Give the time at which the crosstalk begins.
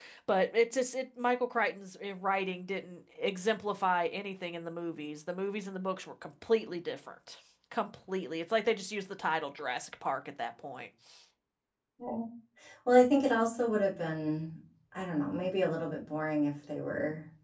none

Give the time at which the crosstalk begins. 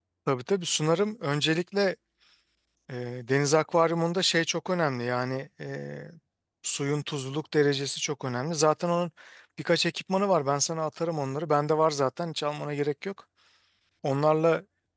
none

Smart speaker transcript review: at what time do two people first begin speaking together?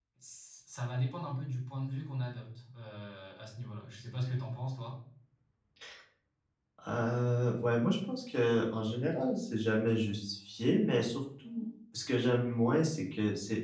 none

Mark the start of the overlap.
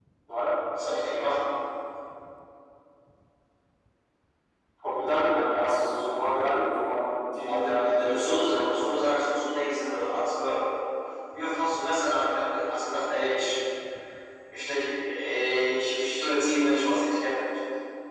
7.5 s

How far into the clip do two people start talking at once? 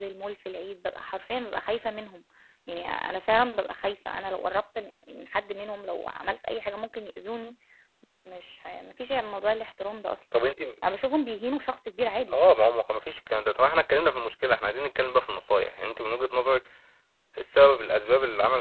none

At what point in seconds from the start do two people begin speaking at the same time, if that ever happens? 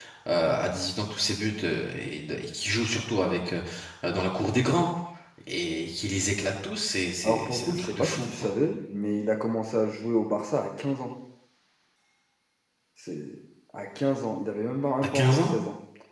7.2 s

